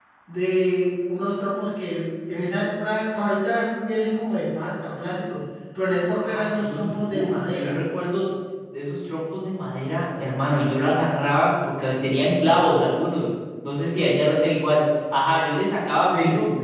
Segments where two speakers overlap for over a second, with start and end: 6.2-7.8

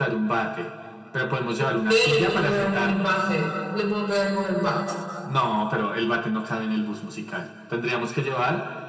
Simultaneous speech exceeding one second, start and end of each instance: 1.9-3.2

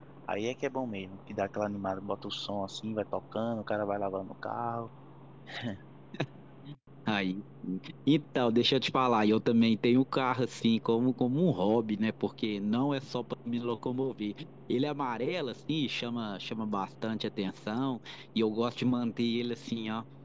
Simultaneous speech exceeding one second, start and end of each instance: none

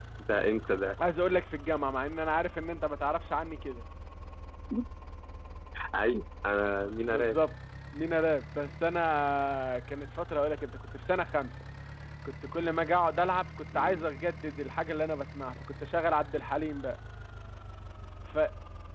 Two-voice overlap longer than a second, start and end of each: none

